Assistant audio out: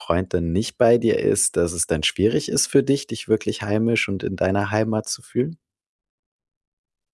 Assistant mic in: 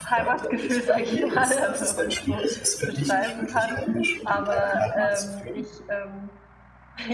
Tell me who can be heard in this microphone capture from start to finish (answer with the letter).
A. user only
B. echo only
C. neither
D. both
D